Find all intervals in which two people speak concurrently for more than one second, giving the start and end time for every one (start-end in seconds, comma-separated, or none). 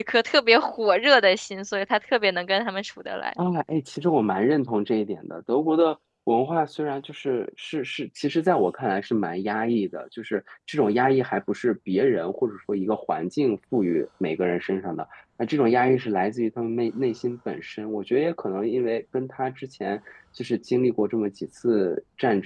none